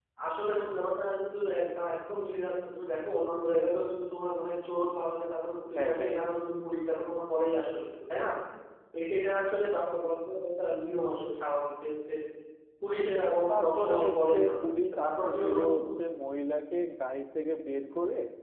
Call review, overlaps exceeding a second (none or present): present